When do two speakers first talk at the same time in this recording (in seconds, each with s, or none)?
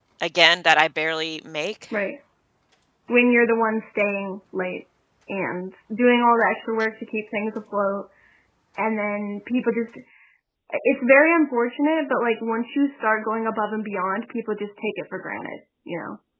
none